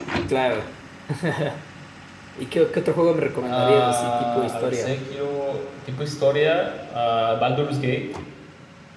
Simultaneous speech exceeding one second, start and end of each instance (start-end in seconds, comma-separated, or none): 3.4-5.0